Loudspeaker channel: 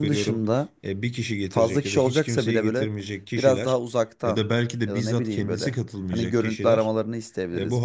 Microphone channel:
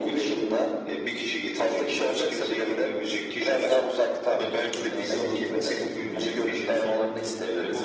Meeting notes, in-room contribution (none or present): present